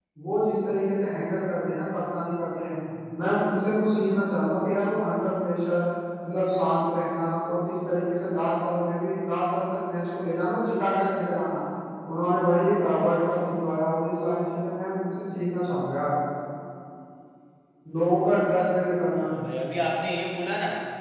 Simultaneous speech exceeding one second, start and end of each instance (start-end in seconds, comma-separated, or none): none